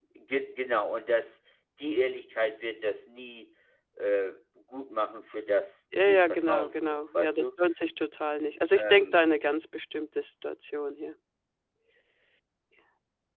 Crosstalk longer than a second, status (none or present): present